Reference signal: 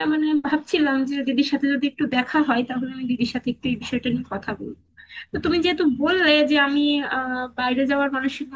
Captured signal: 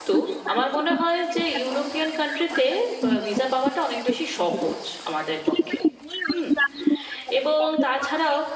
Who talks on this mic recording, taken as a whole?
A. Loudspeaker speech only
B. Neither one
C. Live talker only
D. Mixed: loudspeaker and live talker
D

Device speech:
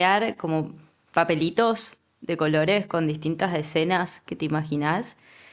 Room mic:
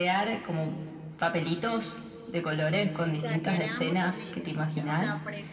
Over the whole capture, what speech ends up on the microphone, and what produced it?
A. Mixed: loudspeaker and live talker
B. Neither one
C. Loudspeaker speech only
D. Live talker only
A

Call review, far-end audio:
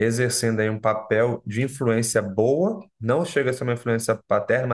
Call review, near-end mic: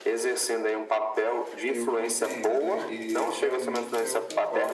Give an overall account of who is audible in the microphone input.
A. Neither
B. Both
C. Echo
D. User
B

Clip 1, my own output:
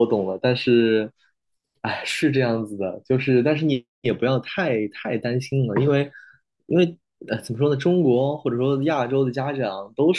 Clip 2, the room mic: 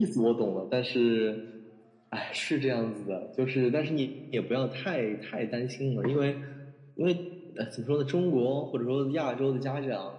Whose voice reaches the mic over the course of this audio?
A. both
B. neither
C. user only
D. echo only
D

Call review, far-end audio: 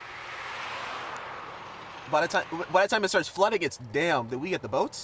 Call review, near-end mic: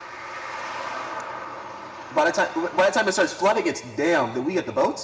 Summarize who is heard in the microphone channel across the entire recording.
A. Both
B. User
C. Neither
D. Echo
D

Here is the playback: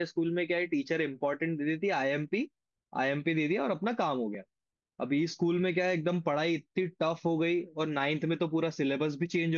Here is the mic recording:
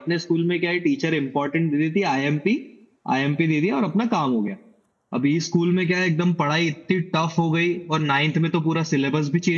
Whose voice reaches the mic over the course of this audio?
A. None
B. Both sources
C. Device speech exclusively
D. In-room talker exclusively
C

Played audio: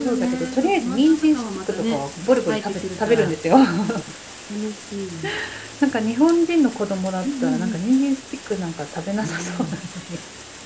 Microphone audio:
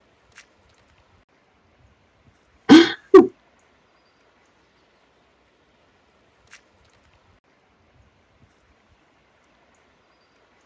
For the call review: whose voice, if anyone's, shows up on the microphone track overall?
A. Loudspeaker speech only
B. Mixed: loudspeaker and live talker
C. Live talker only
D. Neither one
C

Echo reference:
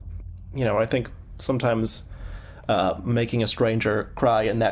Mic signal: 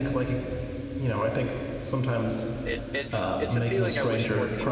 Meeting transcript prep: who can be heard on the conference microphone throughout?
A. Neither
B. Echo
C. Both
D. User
C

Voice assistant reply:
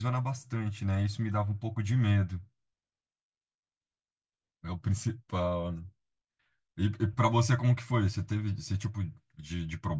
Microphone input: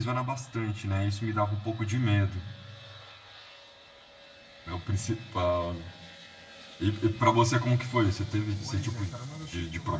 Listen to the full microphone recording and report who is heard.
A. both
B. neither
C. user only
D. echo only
A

